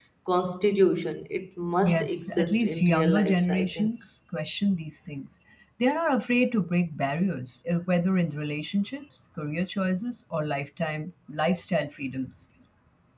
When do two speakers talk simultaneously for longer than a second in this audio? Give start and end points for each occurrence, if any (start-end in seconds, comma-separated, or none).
1.8-3.9